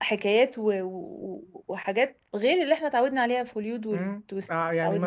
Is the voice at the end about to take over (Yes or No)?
Yes